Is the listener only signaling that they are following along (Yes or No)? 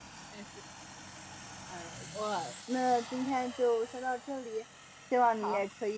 Yes